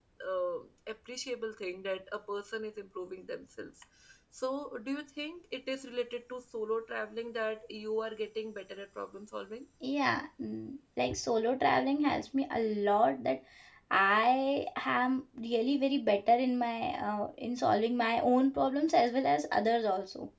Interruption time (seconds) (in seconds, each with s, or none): none